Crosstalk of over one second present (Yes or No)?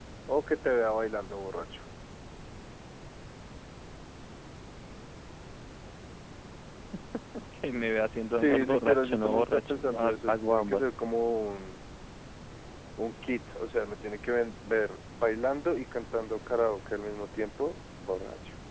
Yes